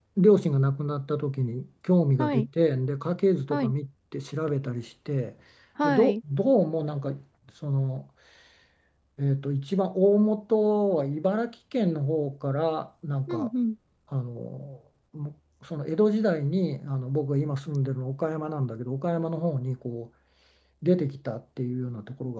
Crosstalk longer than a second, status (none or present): none